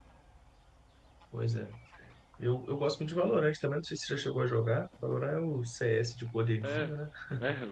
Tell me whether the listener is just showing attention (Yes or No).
No